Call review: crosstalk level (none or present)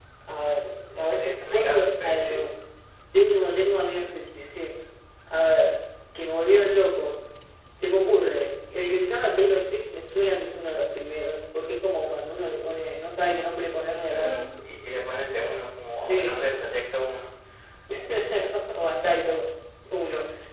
present